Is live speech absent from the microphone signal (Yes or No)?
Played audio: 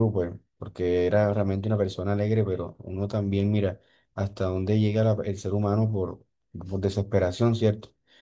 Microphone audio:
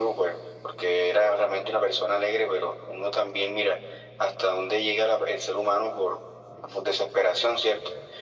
Yes